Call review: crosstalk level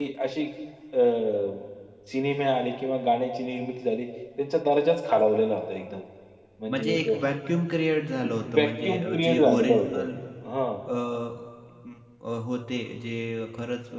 present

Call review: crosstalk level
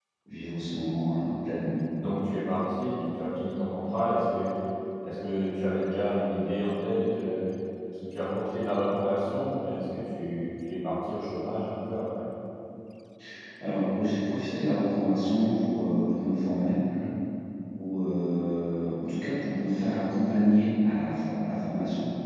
none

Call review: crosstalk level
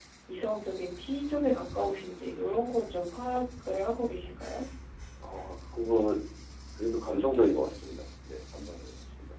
none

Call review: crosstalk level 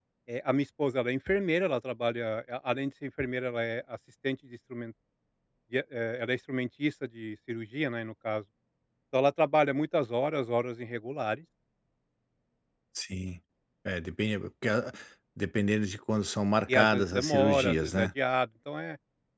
present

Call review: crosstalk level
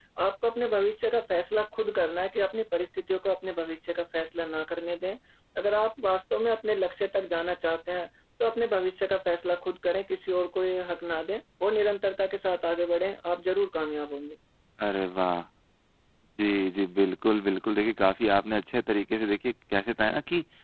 none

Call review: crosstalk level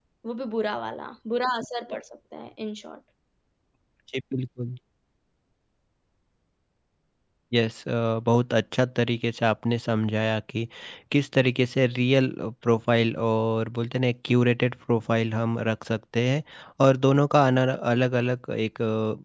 none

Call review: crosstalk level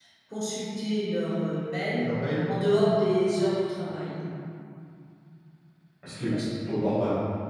none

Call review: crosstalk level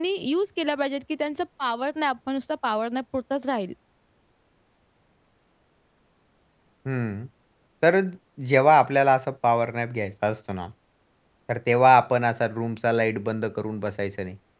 none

